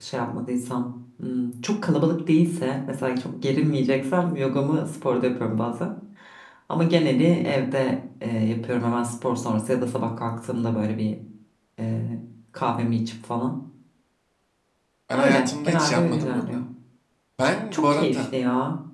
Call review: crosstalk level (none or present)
present